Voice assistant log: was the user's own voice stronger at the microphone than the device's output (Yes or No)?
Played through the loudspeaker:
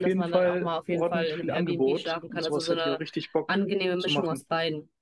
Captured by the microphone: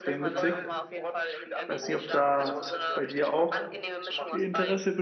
Yes